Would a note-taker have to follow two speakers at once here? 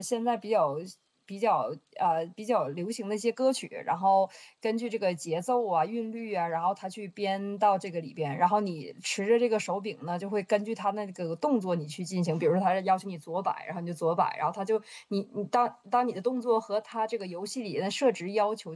No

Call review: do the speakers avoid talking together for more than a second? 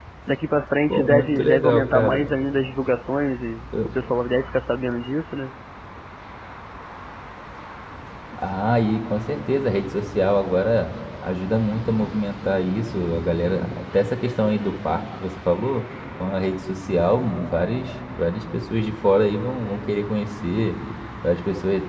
No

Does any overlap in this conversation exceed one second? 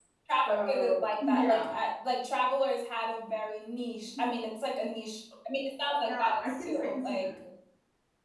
Yes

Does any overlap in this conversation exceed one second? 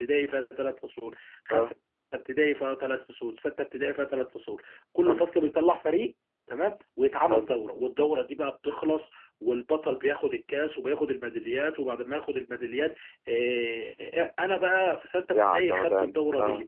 Yes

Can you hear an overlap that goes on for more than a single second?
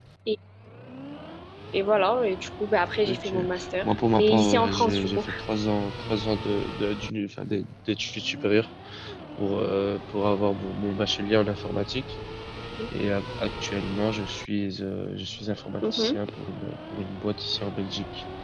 Yes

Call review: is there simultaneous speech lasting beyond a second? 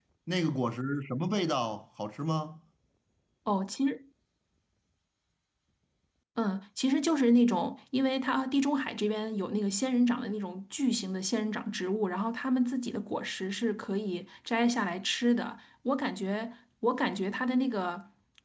No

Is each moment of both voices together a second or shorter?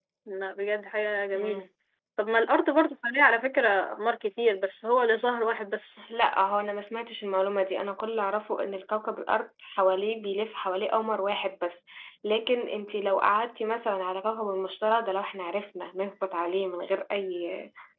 Yes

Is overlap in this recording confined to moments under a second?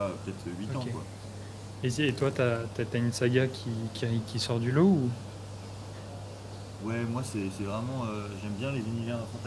Yes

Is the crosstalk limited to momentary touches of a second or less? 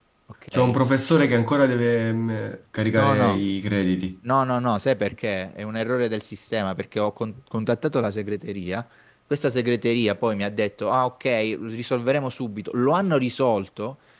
Yes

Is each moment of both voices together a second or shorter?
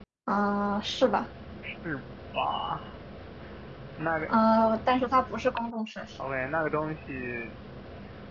Yes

